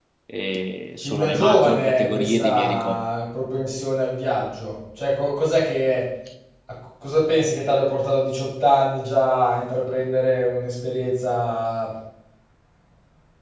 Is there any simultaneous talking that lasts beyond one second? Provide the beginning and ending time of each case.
1.0-3.0

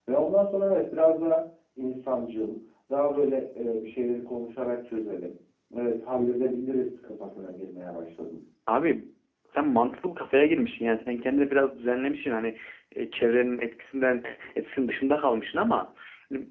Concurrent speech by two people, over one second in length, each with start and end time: none

